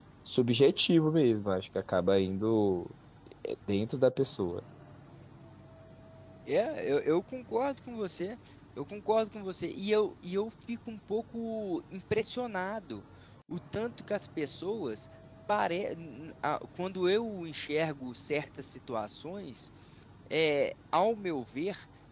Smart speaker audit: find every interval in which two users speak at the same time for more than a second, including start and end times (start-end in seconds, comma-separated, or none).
none